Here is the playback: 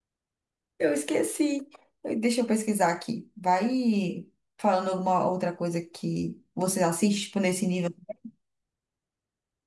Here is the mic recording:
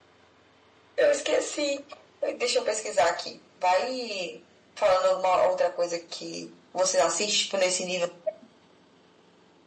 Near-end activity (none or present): none